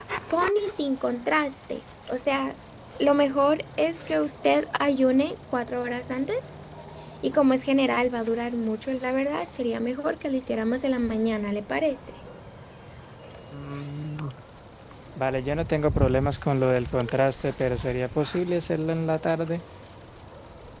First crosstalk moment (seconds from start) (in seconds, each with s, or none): none